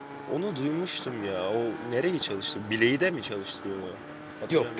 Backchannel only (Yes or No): No